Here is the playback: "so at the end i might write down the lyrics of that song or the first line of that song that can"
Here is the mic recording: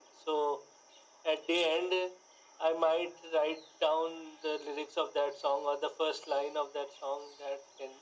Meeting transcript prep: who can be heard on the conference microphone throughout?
echo only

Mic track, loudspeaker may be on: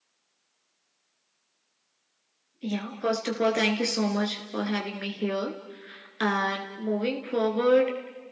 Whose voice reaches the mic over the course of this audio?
echo only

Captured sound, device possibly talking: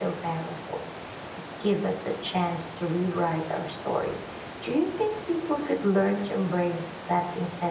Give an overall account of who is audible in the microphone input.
user only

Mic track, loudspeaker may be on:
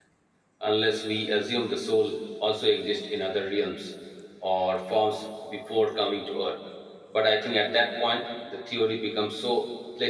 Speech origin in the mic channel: user only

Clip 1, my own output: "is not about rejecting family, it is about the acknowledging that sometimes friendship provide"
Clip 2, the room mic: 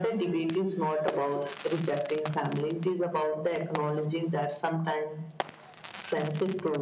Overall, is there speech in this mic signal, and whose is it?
echo only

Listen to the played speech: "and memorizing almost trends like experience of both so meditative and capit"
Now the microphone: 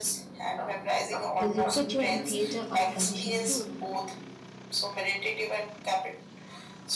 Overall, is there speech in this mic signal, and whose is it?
both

